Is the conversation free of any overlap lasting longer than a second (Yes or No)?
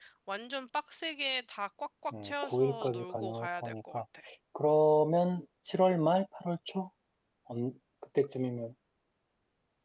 No